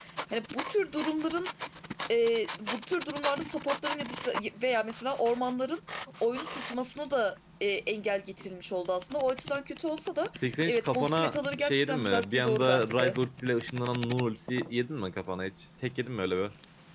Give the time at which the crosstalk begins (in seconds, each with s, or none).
10.7 s